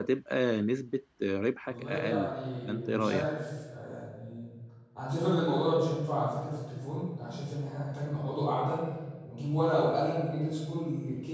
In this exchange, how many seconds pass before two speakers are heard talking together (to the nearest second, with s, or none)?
2 s